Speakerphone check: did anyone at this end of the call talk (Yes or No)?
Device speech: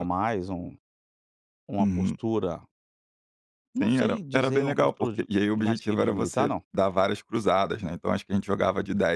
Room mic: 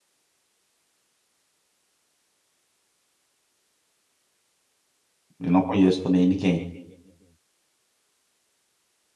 Yes